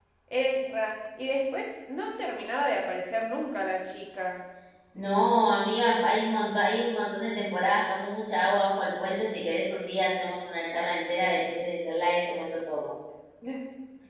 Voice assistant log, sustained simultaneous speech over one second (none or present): none